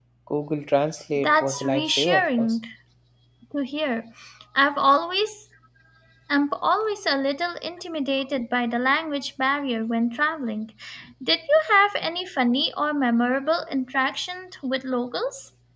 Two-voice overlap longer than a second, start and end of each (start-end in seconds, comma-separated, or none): 1.2-2.6